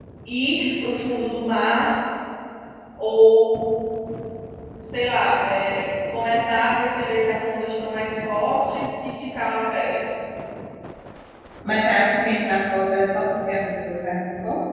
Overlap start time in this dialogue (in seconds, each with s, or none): none